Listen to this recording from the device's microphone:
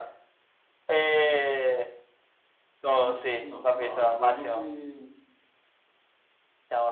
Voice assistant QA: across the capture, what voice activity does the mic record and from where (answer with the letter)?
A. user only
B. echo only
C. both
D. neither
C